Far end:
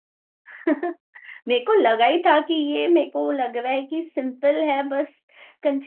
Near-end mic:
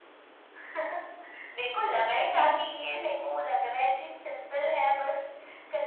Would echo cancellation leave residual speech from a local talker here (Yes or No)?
No